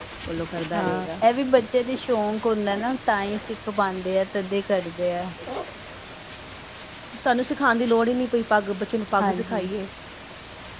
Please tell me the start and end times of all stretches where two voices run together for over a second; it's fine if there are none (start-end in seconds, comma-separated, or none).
none